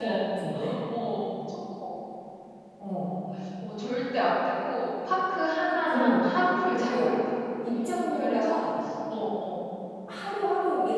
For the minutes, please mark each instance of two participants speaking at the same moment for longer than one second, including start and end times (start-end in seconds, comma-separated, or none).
none